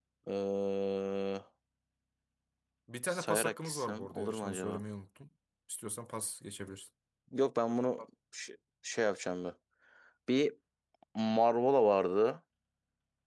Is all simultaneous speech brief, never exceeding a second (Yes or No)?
No